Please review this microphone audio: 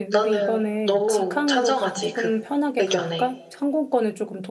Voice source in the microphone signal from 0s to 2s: both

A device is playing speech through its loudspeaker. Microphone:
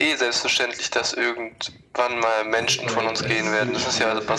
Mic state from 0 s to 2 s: echo only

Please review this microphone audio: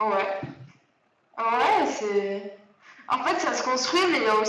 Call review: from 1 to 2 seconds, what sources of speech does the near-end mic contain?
echo only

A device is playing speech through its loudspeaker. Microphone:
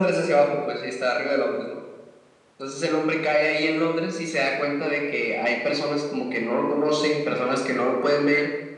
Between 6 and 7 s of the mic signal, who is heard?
echo only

